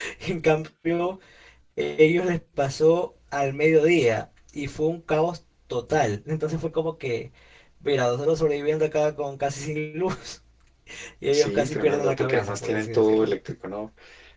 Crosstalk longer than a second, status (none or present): present